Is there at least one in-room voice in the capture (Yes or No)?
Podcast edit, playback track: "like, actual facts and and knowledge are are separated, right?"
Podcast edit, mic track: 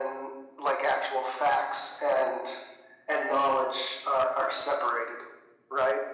No